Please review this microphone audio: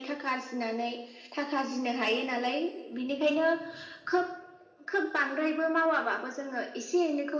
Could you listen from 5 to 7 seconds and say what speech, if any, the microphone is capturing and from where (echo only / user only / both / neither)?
echo only